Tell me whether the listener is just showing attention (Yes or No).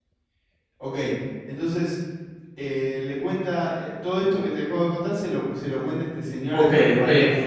No